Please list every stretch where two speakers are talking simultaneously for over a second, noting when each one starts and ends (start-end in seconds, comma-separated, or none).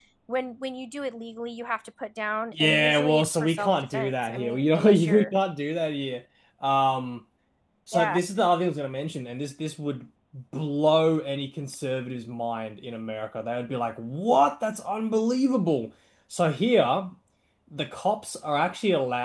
2.5-5.4